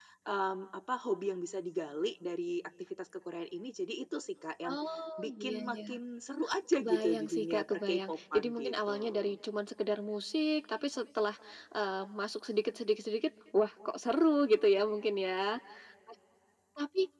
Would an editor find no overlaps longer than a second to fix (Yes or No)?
No